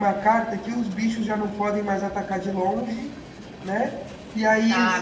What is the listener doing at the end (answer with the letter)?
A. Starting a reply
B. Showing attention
A